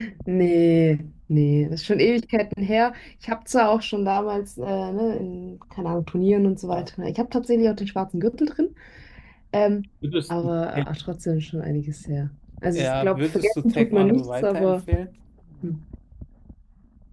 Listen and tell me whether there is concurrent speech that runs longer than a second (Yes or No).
Yes